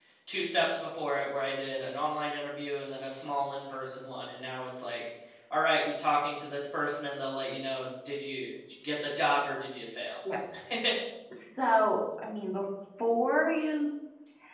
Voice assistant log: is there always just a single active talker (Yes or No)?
Yes